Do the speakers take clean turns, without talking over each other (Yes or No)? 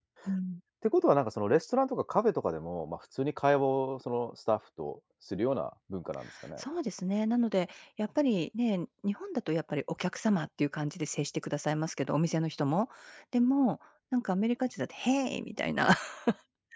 Yes